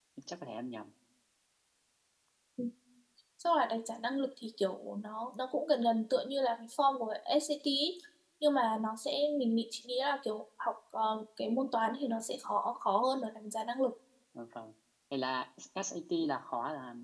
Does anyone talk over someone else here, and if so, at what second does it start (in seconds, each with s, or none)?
none